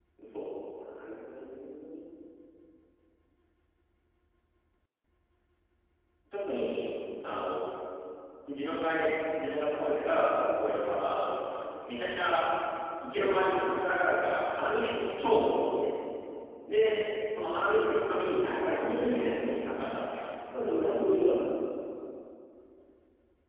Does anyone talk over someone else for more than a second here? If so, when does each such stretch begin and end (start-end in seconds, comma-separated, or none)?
18.4-19.6